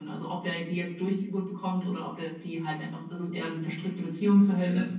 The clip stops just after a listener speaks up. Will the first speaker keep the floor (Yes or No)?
Yes